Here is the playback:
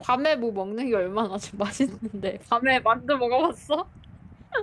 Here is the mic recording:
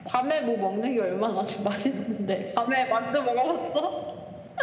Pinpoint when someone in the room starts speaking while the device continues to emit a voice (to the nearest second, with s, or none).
none